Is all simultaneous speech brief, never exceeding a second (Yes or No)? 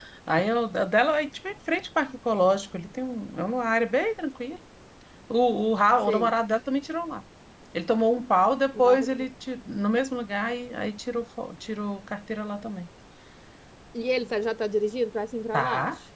Yes